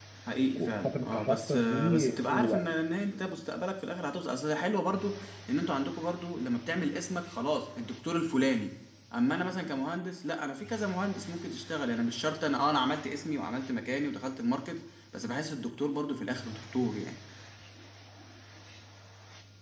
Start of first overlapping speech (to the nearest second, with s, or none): 1 s